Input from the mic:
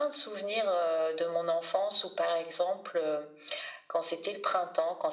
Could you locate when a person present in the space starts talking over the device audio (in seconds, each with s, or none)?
none